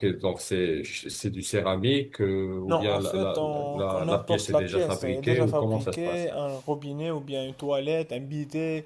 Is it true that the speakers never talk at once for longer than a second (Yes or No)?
No